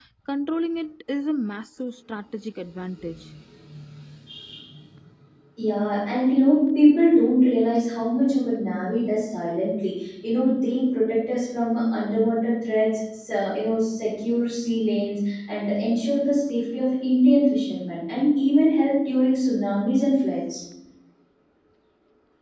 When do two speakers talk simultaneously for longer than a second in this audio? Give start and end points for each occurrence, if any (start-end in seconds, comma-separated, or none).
none